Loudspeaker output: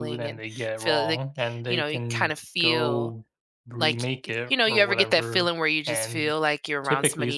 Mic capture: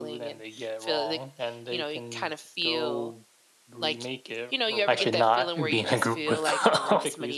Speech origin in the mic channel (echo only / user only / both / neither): both